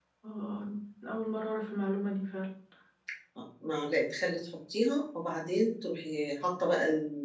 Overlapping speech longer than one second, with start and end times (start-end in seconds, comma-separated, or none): none